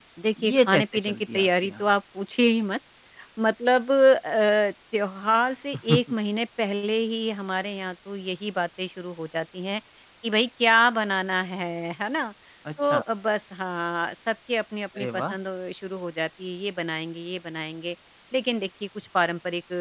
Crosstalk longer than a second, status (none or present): present